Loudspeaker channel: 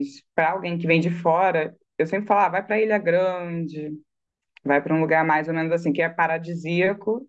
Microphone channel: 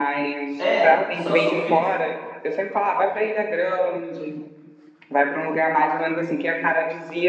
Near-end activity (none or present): present